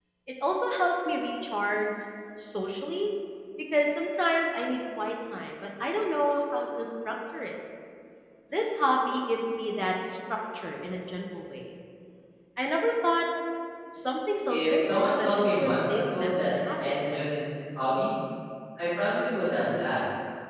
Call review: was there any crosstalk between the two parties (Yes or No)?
Yes